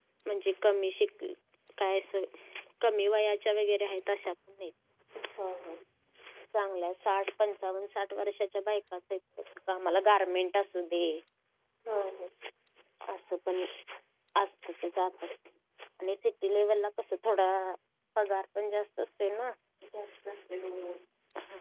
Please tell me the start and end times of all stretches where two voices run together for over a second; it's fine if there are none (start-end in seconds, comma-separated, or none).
none